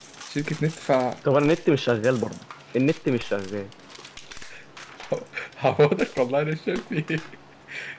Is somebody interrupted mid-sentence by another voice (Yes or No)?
No